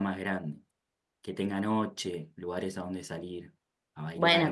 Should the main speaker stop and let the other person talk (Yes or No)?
Yes